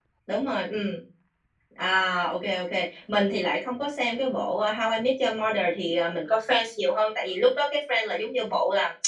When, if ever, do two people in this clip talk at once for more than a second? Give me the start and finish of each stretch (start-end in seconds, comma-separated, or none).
none